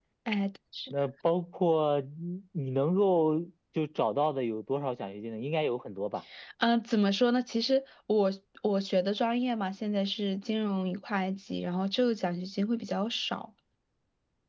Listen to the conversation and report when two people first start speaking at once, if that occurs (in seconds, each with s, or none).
none